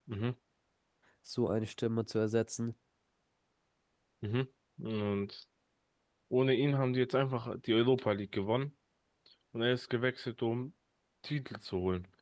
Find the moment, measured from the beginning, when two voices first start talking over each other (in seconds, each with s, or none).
none